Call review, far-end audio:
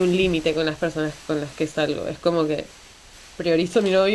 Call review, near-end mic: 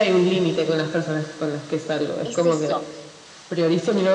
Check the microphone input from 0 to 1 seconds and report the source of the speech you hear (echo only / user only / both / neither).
echo only